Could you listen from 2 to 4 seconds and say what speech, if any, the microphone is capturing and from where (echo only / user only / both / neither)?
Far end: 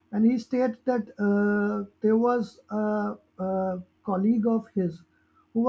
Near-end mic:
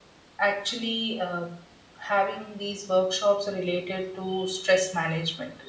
user only